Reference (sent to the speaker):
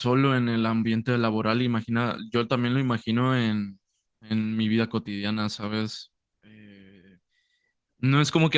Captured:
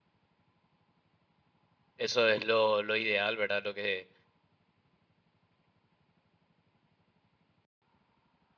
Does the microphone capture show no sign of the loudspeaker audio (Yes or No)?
Yes